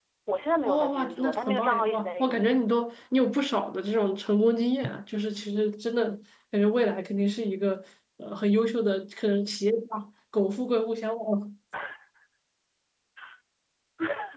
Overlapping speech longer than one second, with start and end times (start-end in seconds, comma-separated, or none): 0.6-2.6